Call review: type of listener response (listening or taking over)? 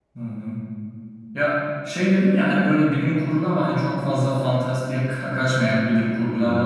listening